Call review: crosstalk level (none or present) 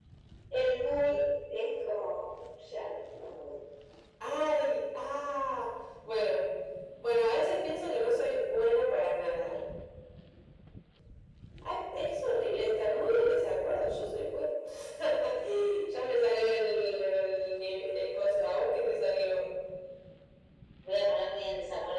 none